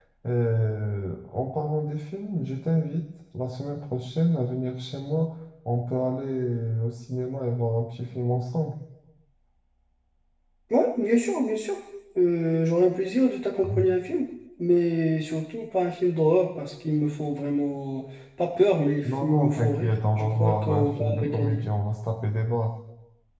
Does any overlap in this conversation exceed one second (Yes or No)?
Yes